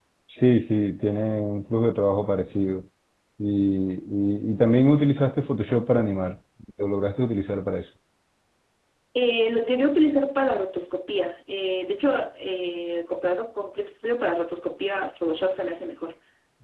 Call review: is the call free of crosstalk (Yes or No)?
Yes